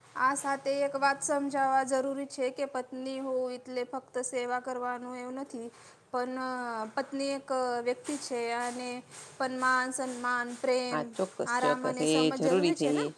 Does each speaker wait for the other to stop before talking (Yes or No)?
No